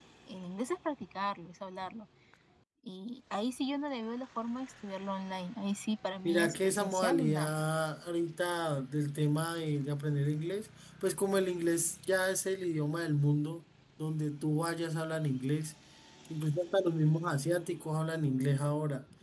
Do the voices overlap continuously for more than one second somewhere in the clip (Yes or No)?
Yes